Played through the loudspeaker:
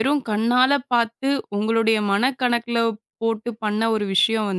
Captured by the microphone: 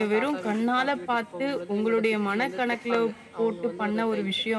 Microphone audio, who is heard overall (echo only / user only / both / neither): both